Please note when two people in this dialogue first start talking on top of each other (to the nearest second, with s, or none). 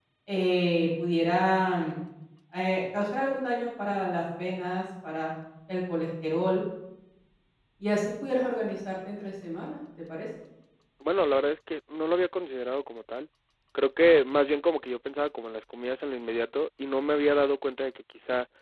none